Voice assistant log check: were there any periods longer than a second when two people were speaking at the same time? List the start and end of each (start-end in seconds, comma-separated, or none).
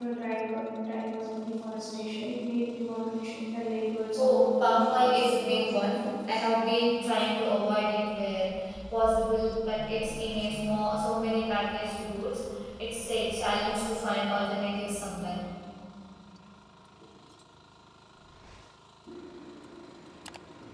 4.2-6.0